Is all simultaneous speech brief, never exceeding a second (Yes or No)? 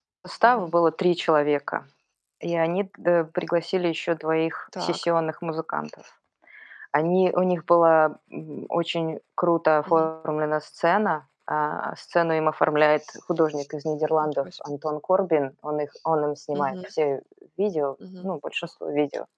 Yes